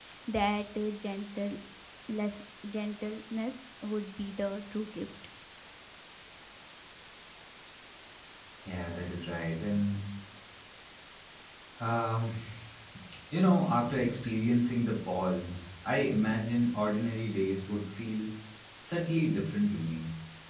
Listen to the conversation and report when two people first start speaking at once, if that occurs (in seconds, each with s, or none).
none